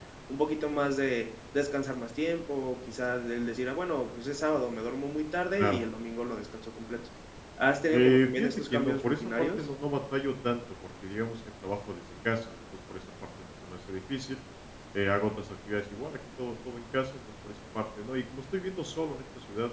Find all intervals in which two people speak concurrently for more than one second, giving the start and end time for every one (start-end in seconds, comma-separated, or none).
7.9-9.6